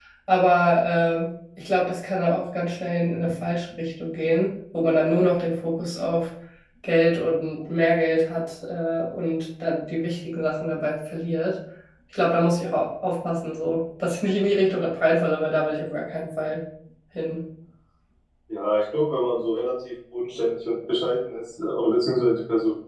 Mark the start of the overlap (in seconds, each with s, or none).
none